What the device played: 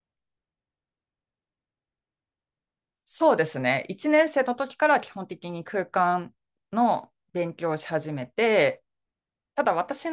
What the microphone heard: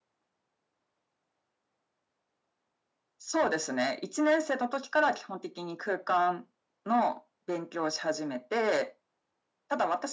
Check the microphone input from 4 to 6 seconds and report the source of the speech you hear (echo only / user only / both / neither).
echo only